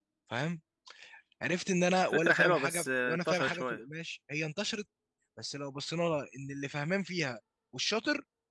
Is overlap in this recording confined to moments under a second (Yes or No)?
No